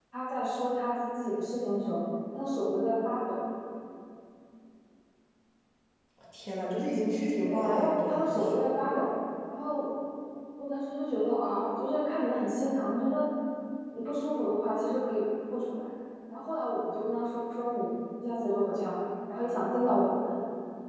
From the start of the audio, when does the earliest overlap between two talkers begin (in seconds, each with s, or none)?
7.4 s